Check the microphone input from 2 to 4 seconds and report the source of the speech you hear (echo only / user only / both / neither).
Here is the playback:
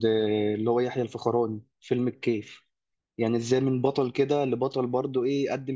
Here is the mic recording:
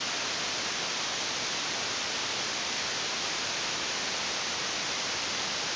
neither